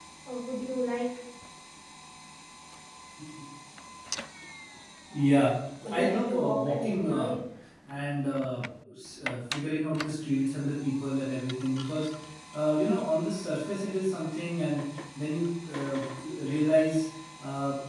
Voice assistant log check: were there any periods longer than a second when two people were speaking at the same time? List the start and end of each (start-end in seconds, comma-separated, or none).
5.9-7.3